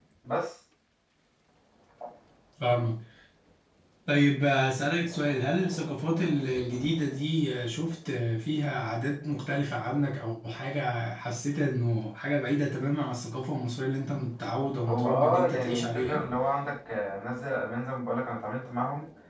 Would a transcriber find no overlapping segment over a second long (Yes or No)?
No